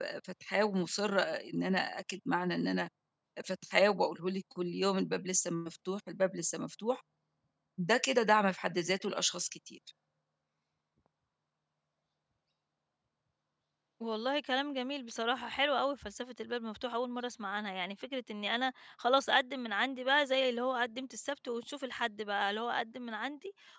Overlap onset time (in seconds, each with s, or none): none